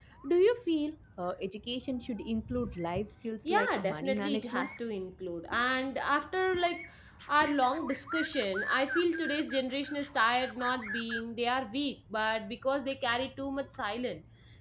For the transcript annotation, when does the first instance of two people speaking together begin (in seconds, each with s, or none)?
3.5 s